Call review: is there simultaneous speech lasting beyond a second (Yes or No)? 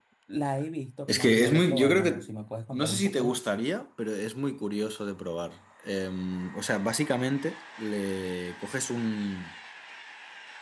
Yes